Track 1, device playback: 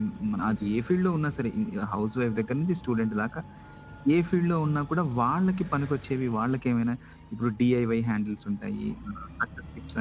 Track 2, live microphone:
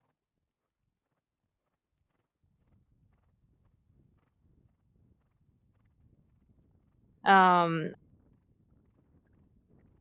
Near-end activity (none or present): present